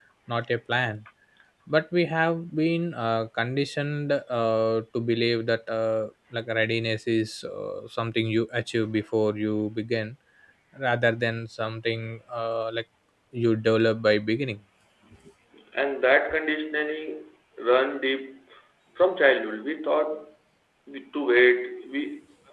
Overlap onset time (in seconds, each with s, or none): none